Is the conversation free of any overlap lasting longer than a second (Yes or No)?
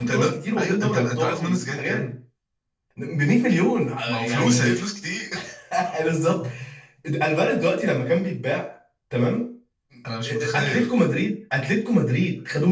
No